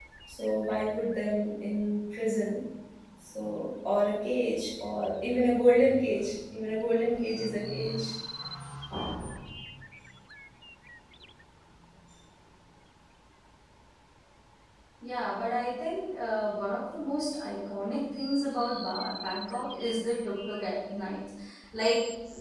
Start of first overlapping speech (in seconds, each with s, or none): none